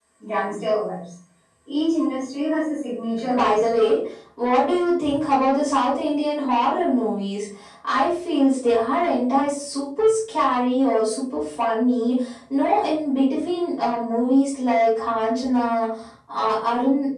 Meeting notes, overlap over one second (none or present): none